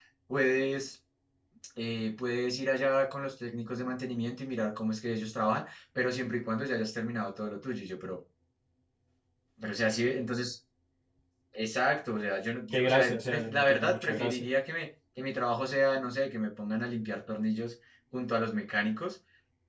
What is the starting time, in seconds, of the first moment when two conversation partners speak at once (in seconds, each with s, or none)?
12.7 s